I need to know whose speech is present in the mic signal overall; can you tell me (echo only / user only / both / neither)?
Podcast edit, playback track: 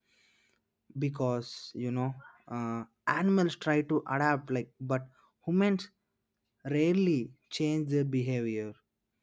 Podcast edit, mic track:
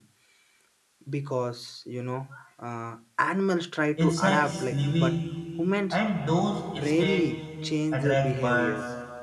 both